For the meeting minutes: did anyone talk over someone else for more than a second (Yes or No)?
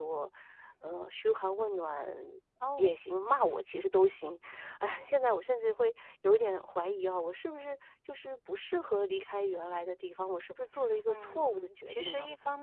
Yes